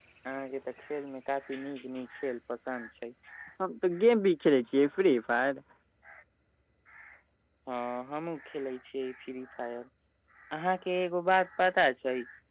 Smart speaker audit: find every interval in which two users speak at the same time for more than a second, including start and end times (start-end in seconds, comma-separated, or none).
none